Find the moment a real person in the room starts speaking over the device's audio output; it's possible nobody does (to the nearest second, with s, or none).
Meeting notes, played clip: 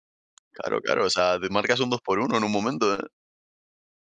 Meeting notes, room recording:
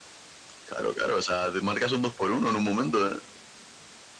none